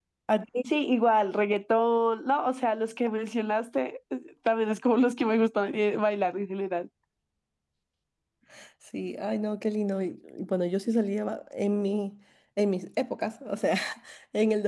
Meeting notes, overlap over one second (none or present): none